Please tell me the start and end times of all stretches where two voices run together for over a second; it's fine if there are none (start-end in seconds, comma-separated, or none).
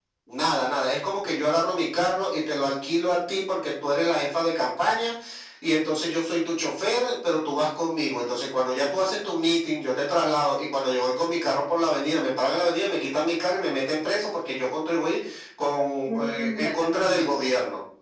16.1-17.4